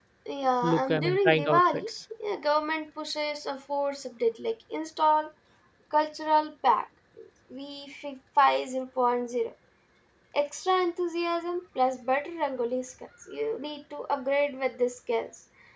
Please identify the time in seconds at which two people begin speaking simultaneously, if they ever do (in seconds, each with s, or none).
0.6 s